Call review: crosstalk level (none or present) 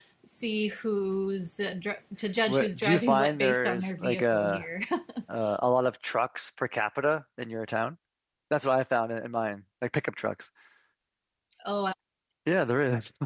present